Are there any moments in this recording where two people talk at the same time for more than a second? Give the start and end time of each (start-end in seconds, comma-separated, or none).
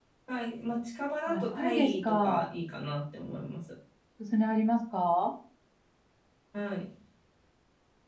1.3-2.5